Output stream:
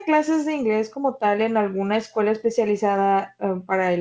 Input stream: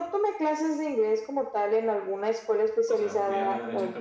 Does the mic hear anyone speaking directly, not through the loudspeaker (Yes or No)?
Yes